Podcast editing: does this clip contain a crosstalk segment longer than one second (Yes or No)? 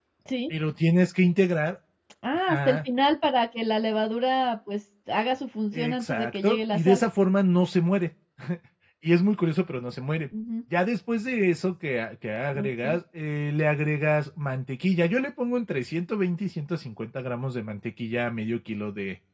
Yes